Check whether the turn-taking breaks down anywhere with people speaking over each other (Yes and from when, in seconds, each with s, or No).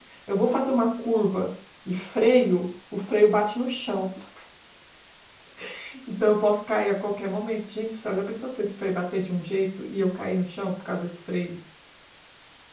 No